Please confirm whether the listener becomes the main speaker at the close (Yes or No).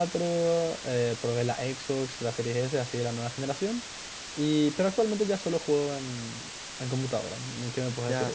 Yes